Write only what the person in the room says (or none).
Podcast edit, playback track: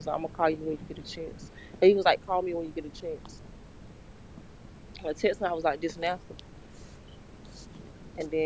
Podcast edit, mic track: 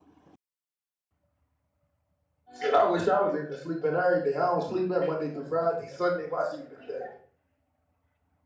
Shit, I wish I was able to sleep in every day. I don't sleep in Monday through Friday. Sunday, my sleeping day.